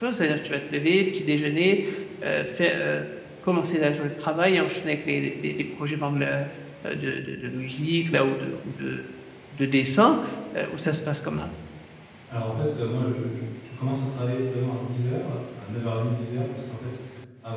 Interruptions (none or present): none